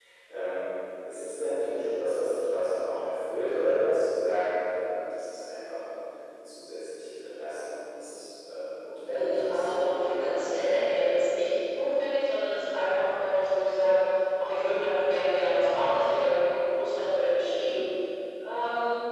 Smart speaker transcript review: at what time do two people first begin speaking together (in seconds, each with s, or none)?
9.1 s